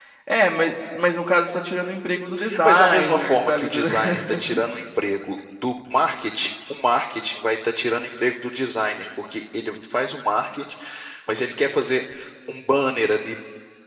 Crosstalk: present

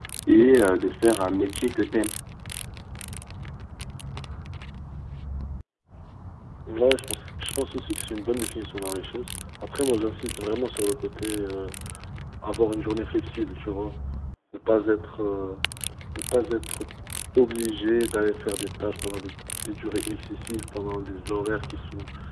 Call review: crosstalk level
none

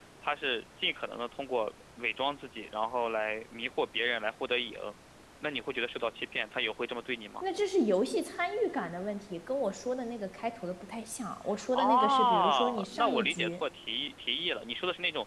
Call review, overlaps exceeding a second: present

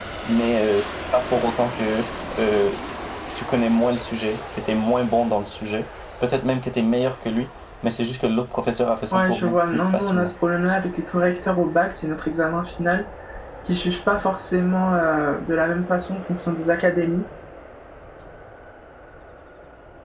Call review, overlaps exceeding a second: present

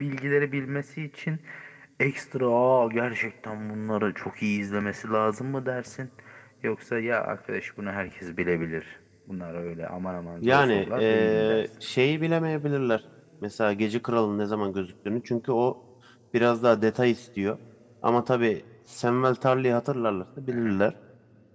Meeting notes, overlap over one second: present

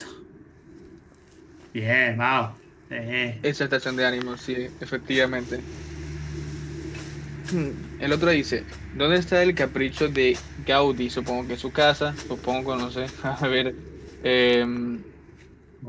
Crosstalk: none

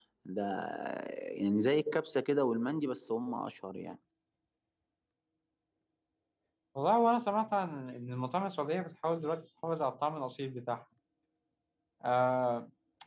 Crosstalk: none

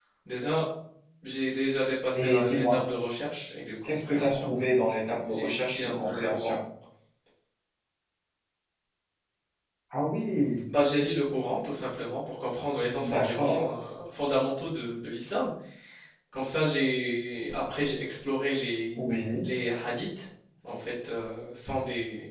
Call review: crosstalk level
present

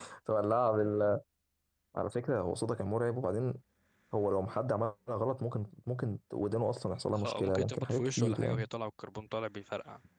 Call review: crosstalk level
present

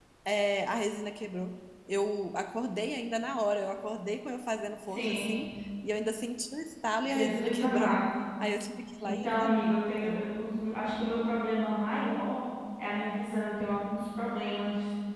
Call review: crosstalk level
present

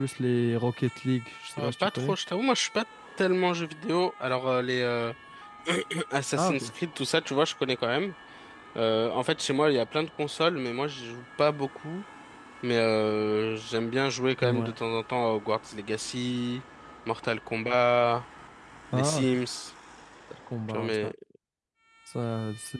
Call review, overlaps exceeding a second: none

